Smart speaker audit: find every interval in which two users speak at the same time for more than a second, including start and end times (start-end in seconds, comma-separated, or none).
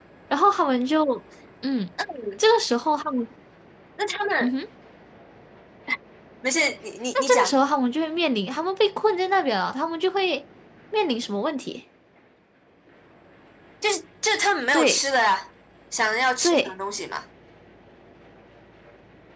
none